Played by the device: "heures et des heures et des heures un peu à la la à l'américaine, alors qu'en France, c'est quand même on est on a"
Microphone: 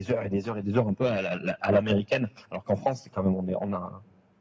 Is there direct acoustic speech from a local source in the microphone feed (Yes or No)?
No